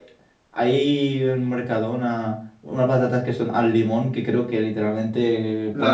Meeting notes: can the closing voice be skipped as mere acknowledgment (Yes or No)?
No